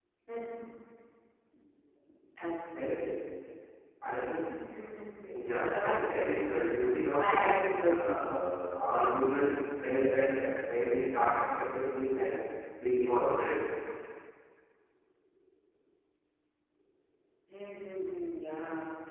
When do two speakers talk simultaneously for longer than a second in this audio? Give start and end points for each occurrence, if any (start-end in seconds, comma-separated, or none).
5.2-6.8